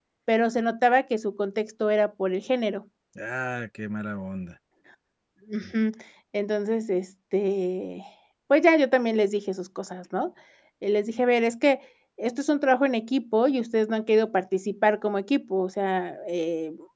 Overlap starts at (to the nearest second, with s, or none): none